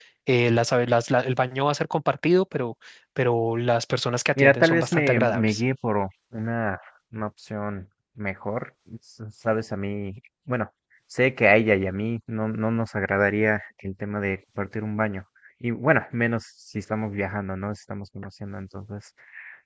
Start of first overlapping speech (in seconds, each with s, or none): 4.4 s